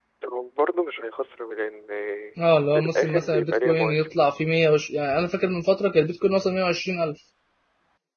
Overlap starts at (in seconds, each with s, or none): 2.8 s